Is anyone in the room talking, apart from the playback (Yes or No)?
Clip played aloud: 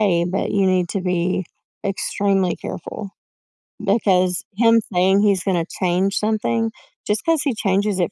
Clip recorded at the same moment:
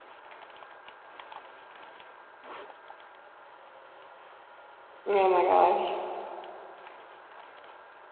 Yes